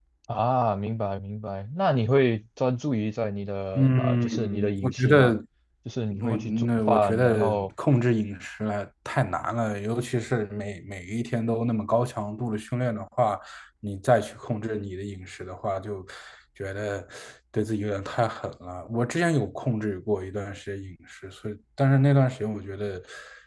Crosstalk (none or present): present